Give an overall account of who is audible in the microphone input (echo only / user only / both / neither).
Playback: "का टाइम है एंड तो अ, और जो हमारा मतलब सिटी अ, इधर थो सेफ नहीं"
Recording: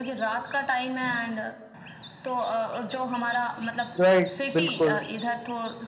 both